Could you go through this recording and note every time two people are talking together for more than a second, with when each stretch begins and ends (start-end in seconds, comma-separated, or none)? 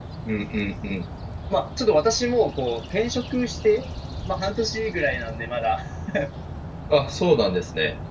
none